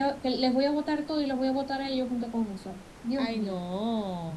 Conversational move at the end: taking over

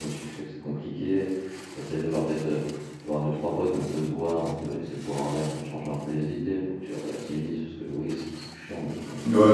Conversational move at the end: taking over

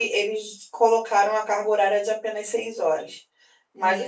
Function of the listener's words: taking over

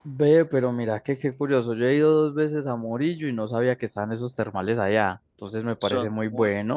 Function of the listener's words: listening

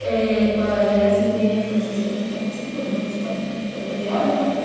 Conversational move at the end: taking over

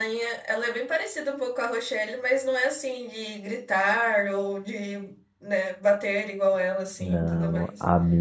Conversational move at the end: taking over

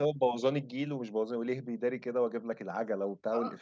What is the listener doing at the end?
taking over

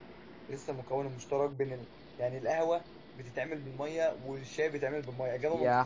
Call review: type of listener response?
taking over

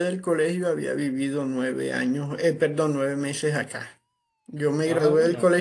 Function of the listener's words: listening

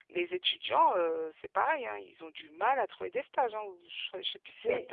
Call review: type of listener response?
taking over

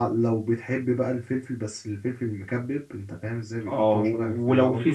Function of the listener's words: taking over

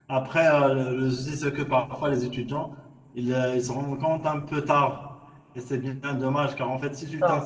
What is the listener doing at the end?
listening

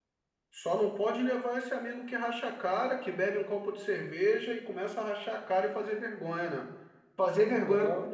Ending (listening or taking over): listening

